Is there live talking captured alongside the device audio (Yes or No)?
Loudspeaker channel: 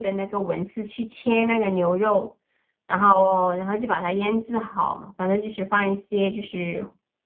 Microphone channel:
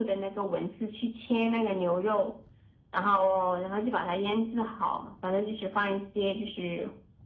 No